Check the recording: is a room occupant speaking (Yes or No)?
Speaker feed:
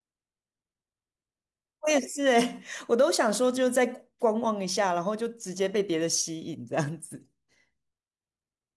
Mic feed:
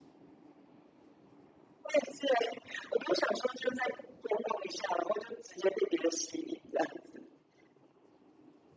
No